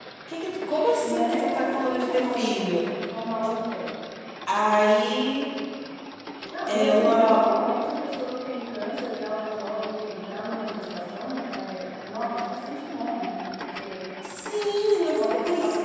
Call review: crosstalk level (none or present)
present